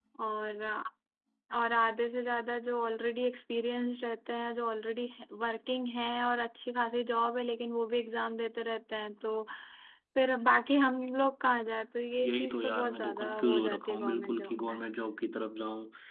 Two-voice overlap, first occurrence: 12.2 s

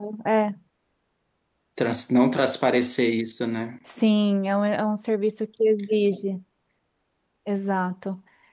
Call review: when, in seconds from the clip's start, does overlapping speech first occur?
none

